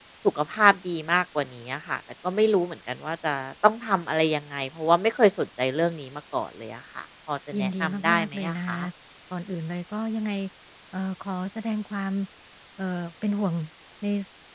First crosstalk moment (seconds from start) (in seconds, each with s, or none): 7.5 s